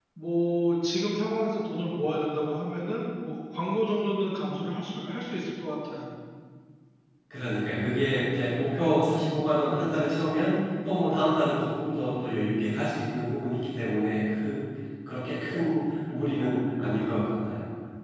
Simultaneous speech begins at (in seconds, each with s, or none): none